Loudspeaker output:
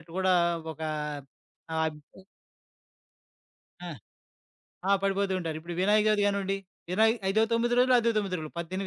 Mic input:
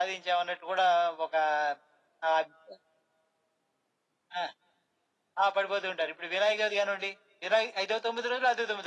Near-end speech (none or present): none